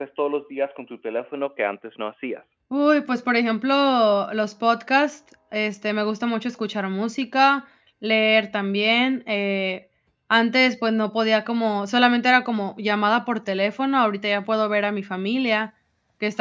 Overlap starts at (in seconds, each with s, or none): none